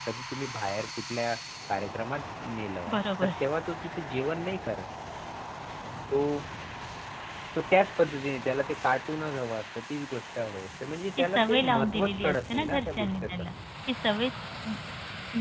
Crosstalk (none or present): present